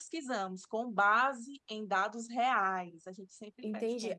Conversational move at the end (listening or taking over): taking over